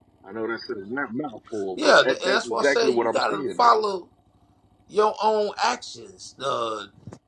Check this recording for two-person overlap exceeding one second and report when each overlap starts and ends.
1.8-3.7

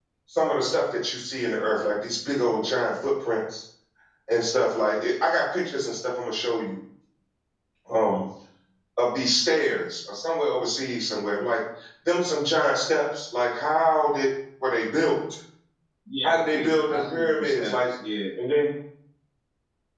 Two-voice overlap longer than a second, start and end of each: 16.2-17.9

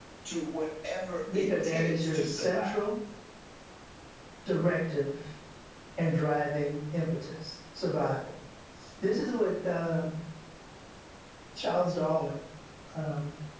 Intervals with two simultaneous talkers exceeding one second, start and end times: 1.3-2.8

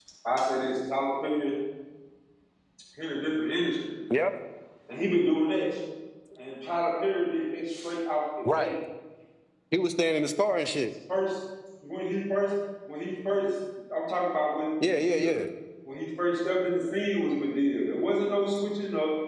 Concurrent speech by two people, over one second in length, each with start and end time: none

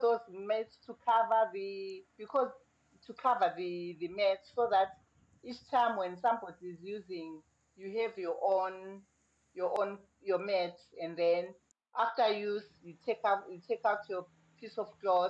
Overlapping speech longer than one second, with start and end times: none

